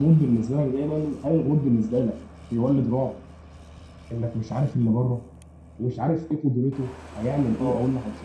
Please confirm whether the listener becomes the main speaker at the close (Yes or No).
Yes